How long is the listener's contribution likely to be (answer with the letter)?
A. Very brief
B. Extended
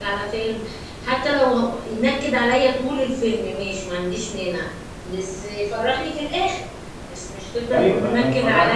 B